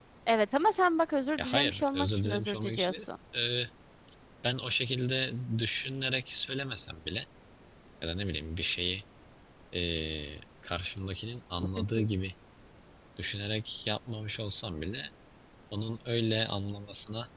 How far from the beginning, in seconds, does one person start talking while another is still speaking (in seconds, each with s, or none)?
1.4 s